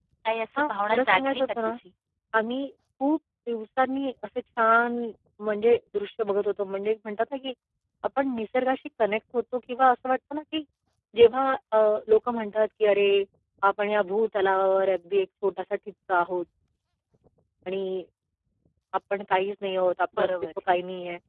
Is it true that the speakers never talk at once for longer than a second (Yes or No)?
No